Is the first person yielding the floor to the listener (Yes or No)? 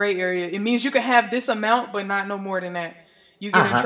Yes